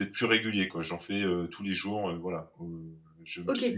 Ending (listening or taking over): taking over